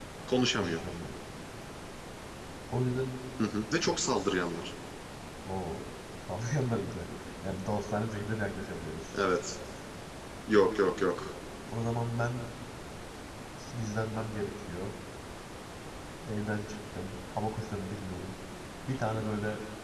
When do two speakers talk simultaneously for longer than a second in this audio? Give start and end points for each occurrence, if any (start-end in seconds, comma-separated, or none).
none